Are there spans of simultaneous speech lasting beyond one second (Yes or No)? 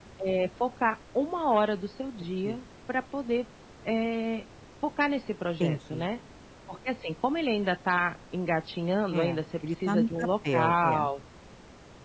Yes